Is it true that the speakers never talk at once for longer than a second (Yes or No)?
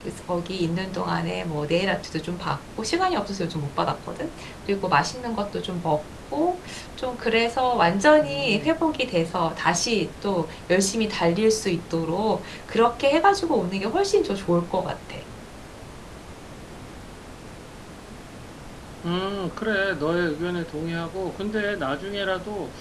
Yes